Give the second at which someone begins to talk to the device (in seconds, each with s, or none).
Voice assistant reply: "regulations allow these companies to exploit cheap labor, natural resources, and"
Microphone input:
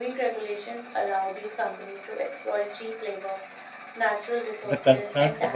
4.6 s